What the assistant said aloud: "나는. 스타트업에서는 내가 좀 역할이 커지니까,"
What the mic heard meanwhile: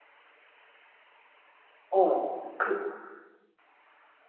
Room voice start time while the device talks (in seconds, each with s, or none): 1.9 s